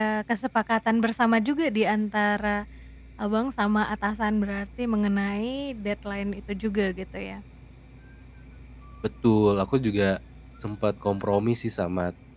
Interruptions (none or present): none